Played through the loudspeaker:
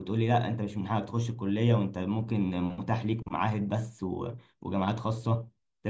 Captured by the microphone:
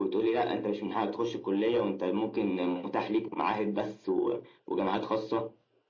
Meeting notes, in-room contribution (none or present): none